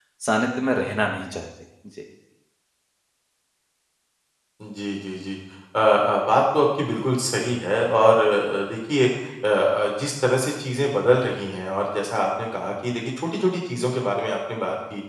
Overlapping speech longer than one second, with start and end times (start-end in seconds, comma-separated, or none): none